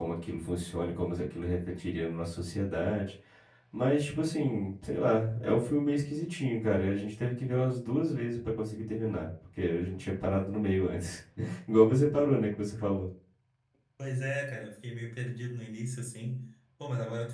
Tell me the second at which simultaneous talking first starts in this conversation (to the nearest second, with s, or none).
none